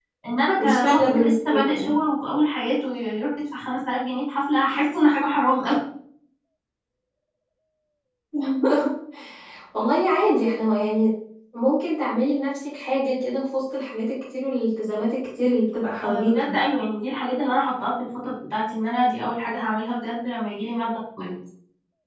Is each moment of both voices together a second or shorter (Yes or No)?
No